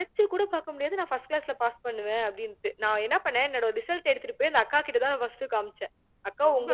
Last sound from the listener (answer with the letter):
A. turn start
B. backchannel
B